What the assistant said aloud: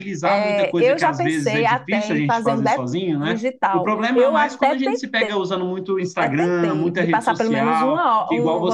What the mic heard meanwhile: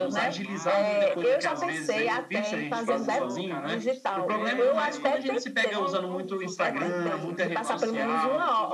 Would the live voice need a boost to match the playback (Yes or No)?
Yes